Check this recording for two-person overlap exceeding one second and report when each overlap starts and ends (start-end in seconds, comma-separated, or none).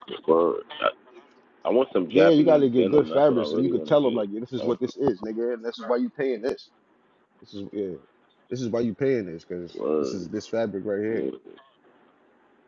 2.1-4.2